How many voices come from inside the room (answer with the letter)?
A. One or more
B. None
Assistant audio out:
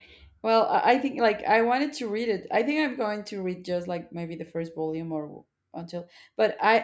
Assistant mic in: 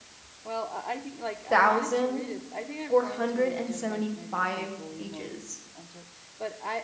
A